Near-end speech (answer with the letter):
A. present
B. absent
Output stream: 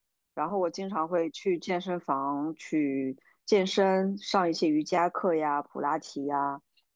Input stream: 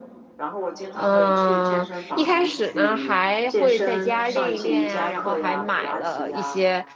A